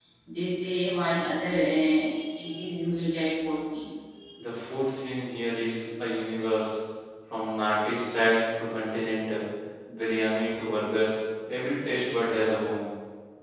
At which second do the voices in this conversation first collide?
none

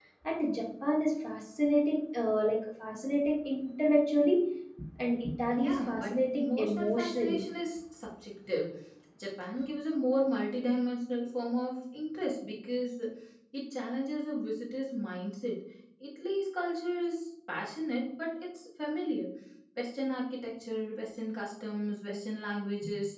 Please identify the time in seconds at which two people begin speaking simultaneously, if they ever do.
6 s

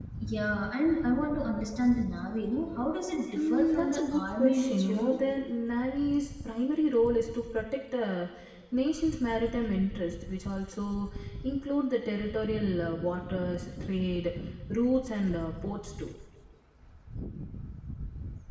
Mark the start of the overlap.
3 s

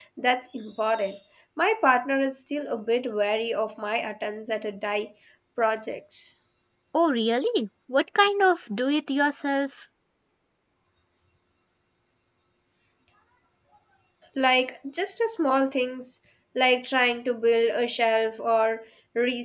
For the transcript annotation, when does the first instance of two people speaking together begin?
none

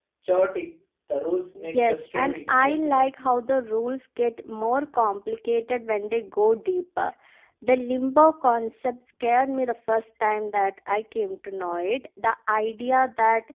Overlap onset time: 2 s

